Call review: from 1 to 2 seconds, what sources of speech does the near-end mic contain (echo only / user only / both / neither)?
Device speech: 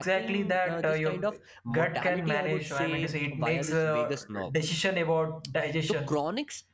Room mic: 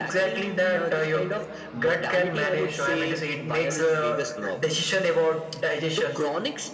echo only